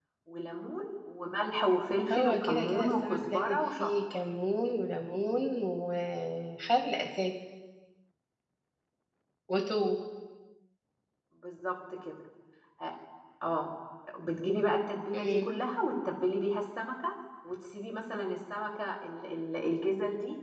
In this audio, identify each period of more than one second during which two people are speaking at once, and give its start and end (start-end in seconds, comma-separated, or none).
2.1-3.9